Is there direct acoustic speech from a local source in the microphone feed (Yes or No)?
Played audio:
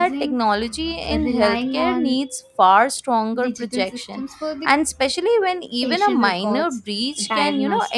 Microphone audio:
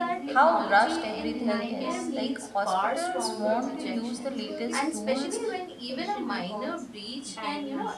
Yes